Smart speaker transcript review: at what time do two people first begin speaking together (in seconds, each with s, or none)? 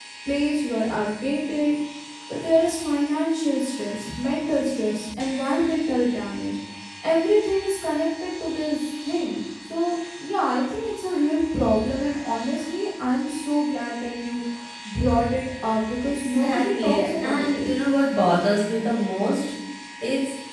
16.2 s